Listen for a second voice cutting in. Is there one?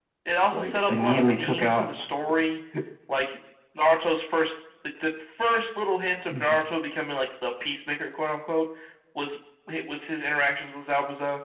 Yes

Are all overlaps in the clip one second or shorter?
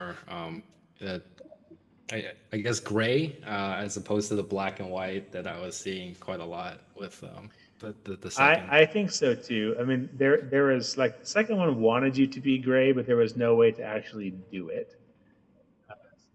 Yes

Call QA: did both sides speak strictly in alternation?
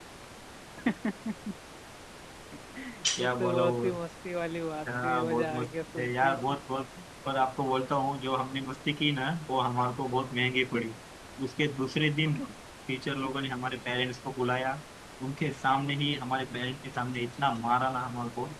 No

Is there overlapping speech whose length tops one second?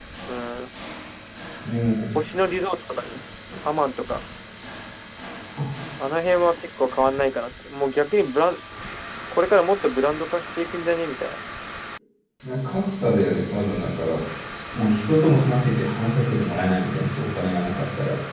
No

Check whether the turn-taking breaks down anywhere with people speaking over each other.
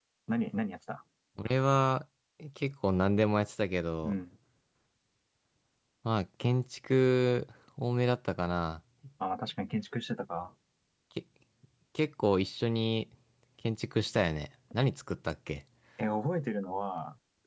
No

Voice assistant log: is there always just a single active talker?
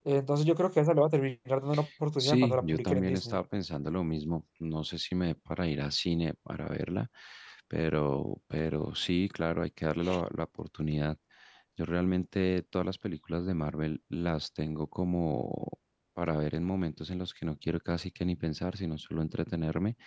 No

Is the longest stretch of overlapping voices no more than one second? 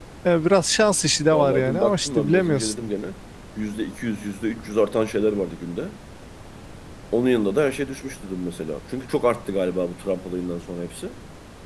No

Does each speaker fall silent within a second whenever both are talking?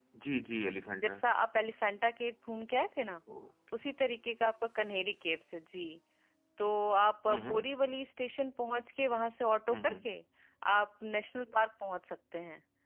Yes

